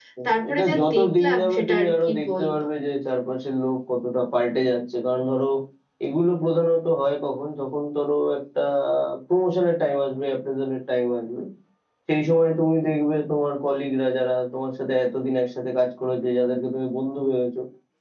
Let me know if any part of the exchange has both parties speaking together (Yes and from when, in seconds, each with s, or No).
Yes, from 0.5 s